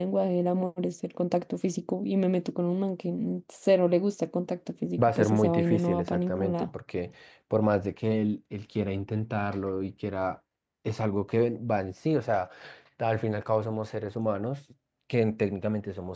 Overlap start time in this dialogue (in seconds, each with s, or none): 5.0 s